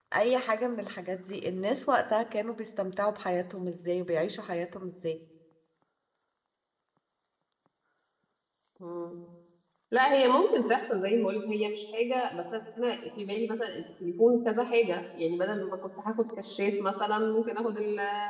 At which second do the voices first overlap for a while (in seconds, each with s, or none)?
none